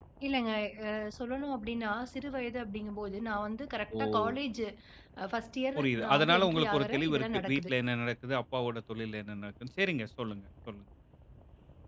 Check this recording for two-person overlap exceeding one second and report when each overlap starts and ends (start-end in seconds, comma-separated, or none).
5.8-7.7